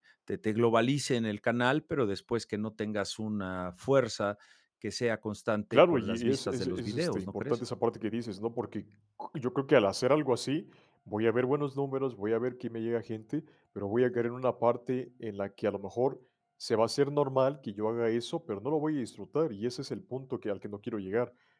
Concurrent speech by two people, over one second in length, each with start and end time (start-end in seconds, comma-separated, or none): 5.7-7.6